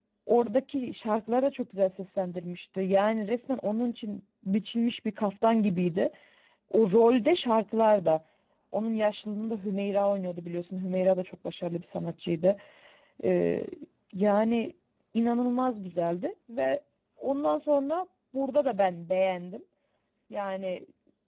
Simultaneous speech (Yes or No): No